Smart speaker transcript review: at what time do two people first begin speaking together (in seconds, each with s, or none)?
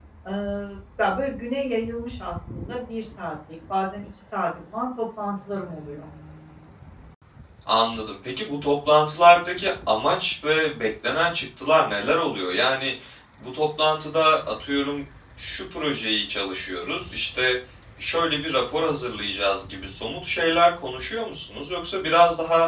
none